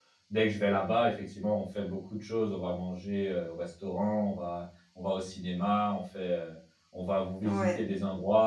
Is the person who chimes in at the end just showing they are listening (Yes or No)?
Yes